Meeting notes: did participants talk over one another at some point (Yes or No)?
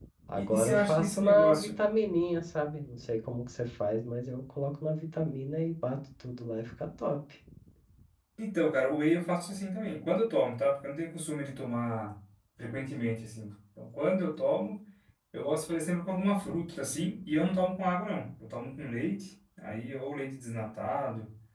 Yes